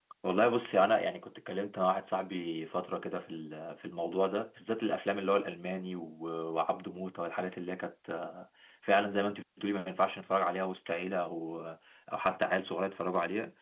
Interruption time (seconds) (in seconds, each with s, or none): none